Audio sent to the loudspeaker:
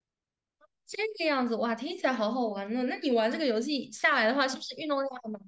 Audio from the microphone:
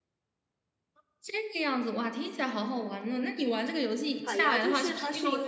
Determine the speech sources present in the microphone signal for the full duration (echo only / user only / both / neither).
both